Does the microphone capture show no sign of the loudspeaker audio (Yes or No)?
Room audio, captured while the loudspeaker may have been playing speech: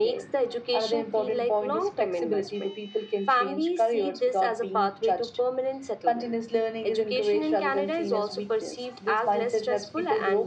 No